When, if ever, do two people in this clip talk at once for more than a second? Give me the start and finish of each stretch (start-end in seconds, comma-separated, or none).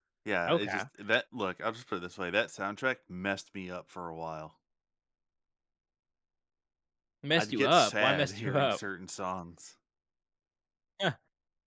7.4-8.8